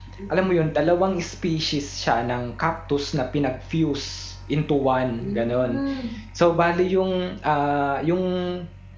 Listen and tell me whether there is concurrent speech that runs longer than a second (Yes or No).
No